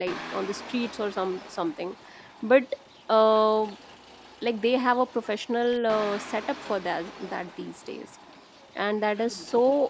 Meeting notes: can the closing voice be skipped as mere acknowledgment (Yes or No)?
Yes